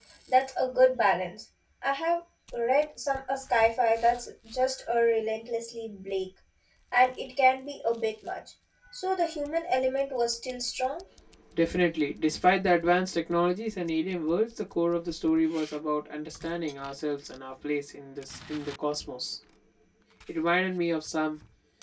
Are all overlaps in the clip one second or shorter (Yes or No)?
Yes